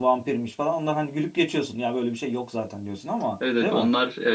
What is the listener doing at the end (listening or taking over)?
taking over